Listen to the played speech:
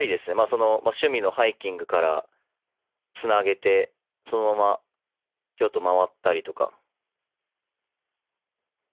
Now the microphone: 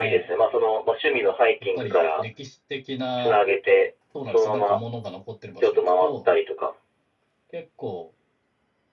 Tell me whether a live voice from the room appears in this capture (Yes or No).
Yes